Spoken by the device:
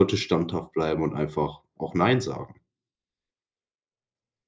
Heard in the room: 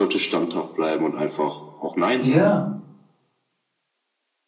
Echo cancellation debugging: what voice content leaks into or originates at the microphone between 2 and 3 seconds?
both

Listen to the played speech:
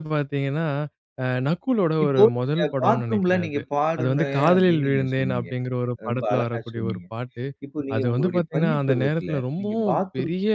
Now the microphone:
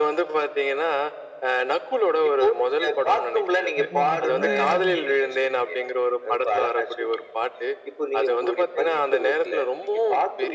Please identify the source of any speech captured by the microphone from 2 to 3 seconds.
echo only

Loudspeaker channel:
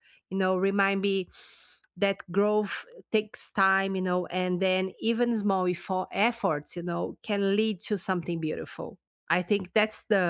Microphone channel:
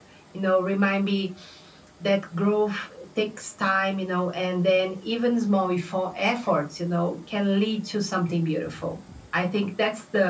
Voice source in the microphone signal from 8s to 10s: echo only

